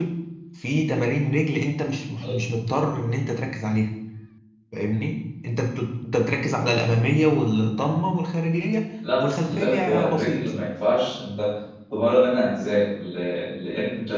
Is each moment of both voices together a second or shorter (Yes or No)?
No